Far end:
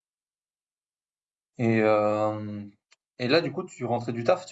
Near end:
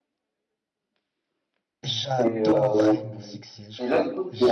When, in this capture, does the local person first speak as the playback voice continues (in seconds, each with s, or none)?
1.8 s